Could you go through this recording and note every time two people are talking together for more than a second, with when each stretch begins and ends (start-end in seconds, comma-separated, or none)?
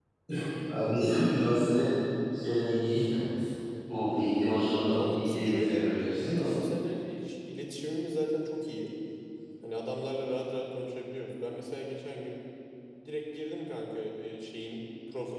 4.9-6.6